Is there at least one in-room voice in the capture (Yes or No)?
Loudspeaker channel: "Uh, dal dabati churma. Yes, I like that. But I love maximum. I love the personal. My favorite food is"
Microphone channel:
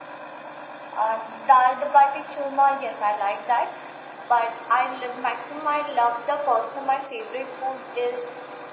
No